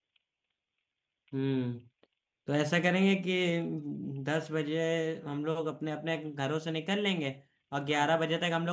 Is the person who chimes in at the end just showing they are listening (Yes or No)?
Yes